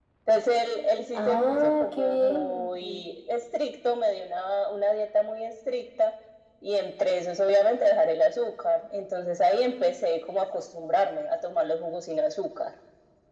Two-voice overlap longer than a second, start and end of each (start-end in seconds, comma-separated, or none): 1.1-3.0